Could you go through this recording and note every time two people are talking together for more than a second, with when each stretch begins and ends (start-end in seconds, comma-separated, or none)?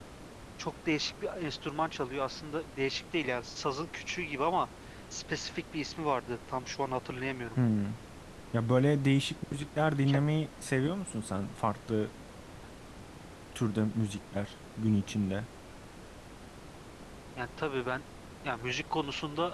none